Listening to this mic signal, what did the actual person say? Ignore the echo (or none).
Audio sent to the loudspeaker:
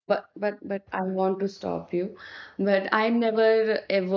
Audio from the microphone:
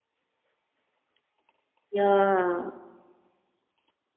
Yeah,